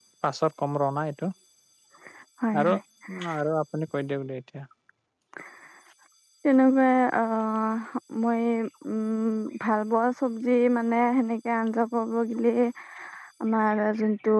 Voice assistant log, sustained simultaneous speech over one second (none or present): none